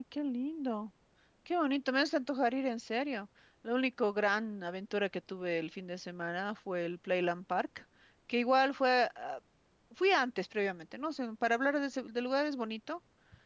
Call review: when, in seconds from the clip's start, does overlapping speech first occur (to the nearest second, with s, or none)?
none